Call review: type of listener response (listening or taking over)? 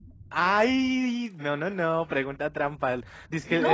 listening